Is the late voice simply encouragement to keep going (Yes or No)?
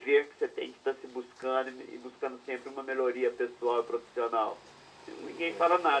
Yes